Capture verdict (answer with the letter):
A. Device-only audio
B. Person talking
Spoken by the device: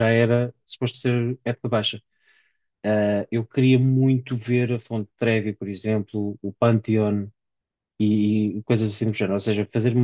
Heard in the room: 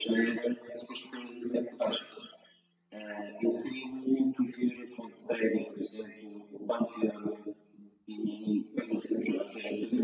A